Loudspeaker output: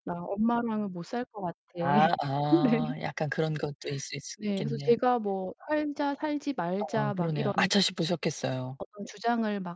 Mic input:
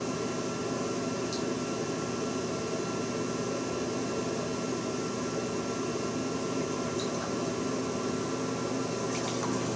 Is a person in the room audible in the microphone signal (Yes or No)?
No